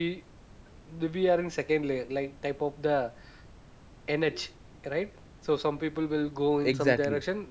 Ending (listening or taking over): listening